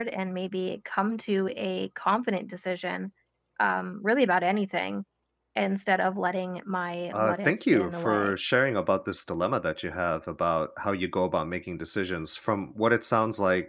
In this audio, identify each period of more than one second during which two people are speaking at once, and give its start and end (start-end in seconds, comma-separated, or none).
7.1-8.3